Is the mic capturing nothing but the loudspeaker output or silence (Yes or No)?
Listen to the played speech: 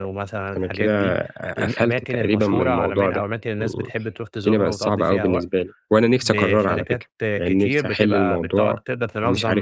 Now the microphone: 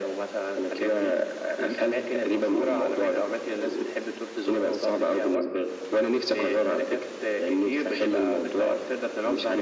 Yes